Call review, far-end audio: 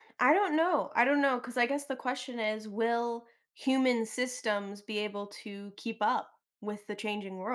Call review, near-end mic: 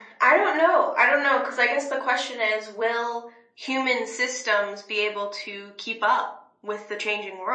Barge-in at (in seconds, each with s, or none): none